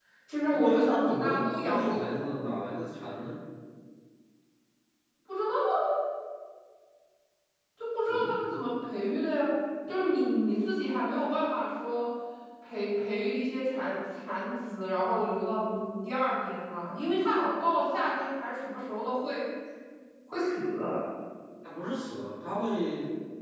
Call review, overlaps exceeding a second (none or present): present